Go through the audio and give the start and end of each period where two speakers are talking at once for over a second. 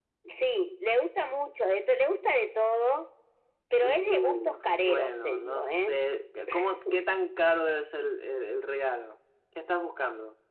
3.8-5.9

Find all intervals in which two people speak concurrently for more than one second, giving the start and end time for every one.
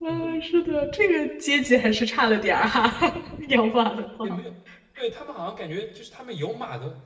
none

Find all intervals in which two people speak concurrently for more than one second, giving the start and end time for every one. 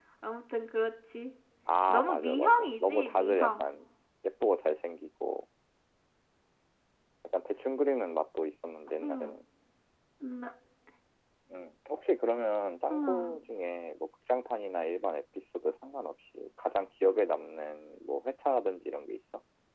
1.9-3.6

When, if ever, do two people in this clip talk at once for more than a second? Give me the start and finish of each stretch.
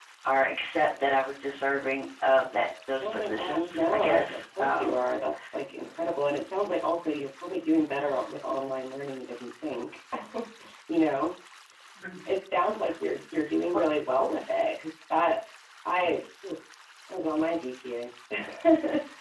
3.0-5.0

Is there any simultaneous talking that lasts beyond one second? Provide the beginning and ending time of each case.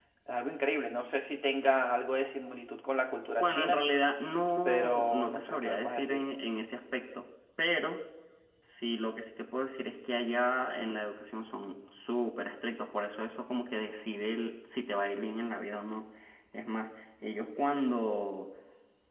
4.7-6.2

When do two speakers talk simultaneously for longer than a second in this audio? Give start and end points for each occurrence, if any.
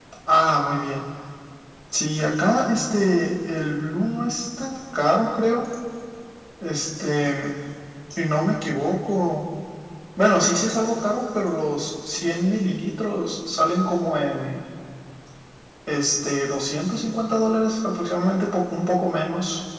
none

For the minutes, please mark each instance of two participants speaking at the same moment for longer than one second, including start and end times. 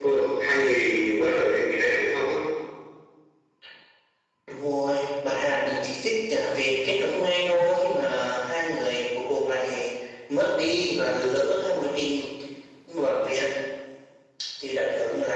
none

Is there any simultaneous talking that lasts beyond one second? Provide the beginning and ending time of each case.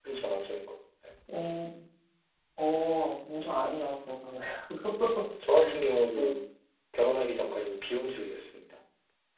none

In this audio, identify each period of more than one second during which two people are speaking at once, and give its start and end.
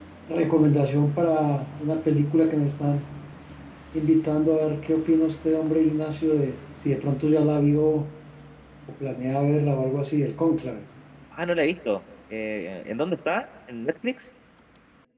none

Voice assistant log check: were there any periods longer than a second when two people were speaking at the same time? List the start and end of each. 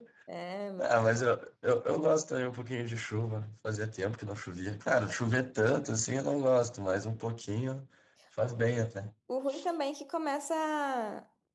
none

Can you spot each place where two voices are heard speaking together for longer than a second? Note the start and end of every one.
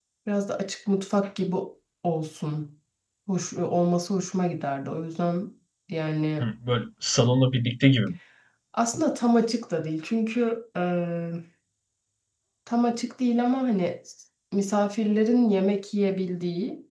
none

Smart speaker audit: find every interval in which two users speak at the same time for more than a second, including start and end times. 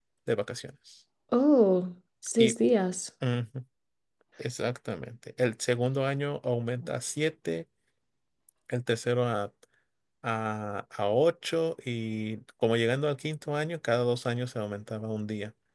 none

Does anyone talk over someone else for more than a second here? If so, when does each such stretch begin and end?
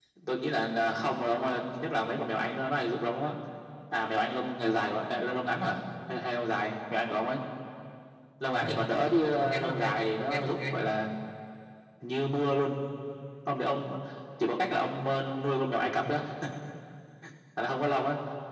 9.4-10.8

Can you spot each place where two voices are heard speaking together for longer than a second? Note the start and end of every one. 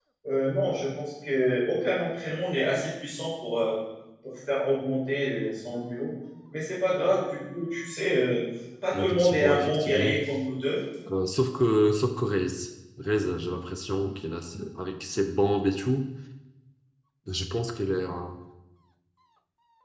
8.9-10.2

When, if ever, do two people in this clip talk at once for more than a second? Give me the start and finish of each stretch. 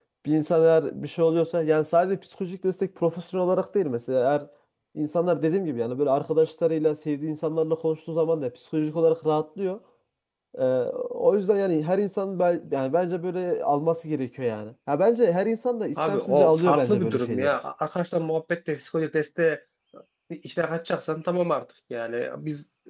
16.0-17.5

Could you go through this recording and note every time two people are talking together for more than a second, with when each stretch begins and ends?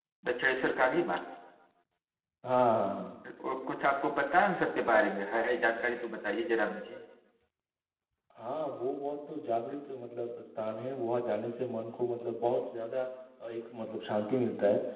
none

